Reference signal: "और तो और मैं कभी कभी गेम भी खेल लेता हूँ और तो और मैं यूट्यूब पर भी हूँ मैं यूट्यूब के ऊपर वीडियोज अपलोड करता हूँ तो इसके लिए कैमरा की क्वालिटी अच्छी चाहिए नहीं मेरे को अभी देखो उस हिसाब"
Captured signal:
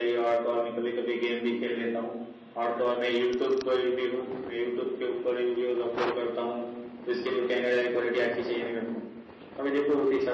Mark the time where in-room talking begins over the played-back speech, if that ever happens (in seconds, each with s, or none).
none